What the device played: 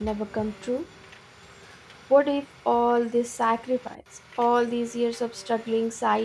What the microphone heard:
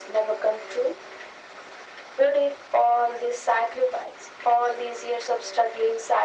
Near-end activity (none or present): none